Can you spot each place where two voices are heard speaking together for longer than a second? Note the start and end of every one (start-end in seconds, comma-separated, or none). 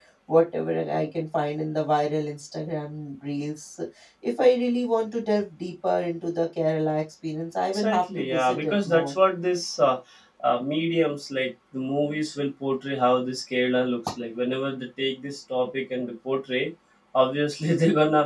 7.7-9.1